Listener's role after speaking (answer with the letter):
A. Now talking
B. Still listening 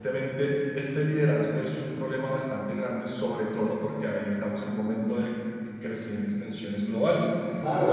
A